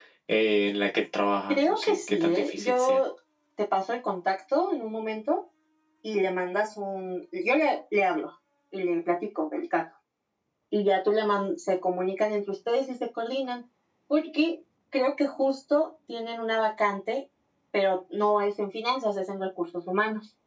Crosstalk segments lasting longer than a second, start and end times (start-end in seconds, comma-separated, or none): 1.5-3.0